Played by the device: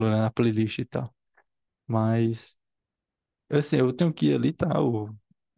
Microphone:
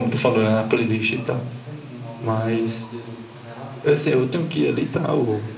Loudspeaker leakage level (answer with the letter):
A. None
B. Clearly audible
B